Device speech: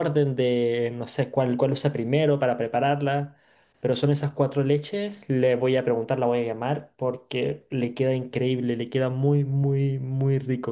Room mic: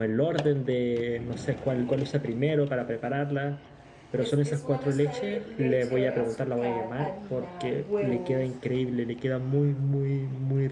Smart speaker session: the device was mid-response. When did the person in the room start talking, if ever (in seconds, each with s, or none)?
4.2 s